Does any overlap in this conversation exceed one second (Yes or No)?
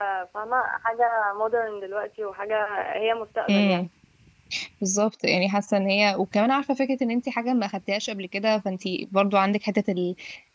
No